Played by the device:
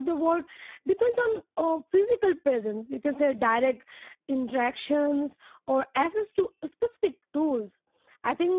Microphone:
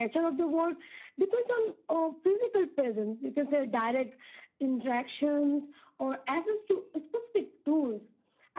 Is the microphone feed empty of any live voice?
Yes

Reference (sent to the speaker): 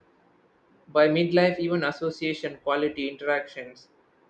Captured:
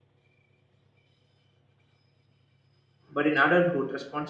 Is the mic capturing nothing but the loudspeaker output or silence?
No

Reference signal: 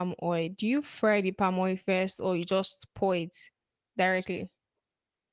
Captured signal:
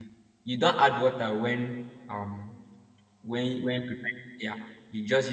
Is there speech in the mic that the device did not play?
Yes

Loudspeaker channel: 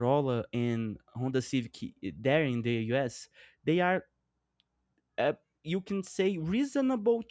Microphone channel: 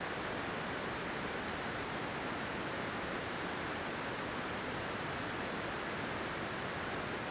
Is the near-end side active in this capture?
No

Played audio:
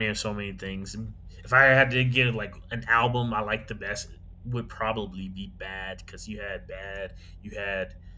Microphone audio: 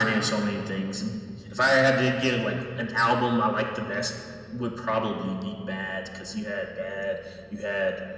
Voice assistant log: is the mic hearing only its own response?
Yes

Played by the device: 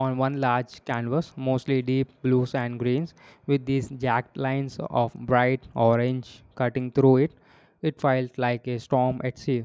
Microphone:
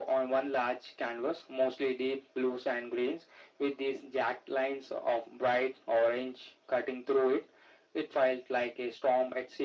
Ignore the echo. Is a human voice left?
No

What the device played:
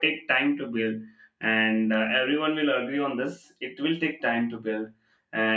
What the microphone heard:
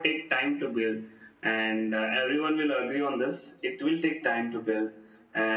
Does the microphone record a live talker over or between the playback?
No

